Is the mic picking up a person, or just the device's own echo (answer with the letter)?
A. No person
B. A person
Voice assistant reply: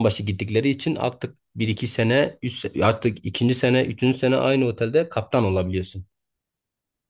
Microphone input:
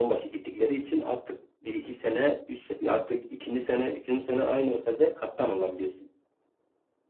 A